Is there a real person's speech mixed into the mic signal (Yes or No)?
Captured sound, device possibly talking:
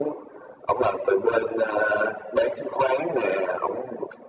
No